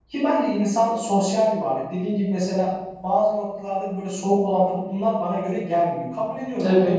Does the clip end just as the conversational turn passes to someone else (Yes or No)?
No